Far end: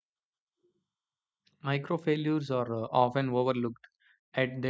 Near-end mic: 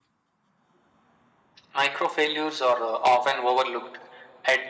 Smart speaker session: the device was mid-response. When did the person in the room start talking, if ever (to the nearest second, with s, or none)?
none